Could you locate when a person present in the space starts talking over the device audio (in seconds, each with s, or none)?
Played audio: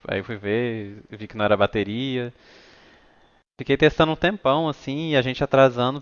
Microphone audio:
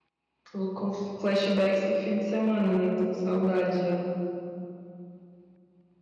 0.5 s